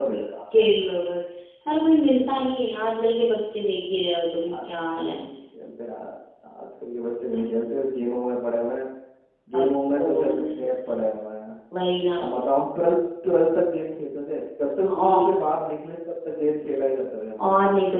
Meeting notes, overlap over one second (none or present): present